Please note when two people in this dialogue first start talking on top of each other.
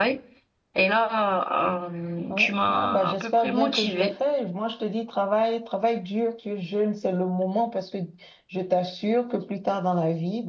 2 s

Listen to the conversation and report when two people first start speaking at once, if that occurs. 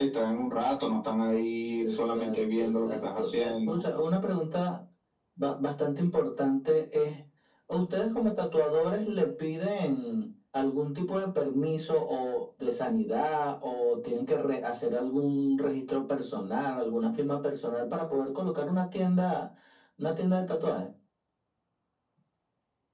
2 s

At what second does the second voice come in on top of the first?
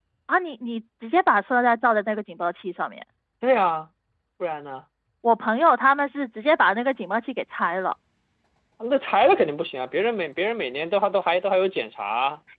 none

